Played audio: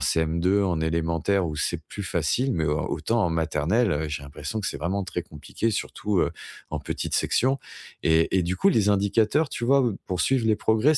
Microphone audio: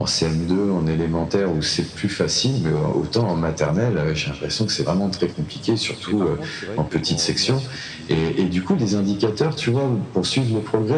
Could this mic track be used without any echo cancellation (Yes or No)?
No